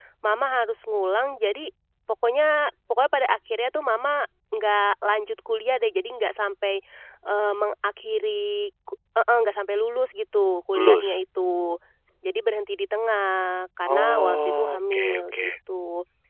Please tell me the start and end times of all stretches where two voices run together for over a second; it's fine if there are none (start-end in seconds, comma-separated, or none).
13.9-15.5